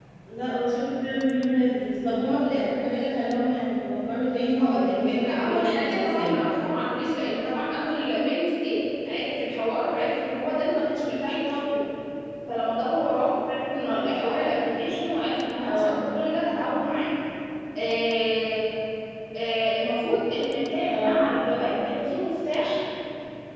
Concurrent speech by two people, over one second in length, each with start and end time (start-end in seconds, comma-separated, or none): 4.6-6.3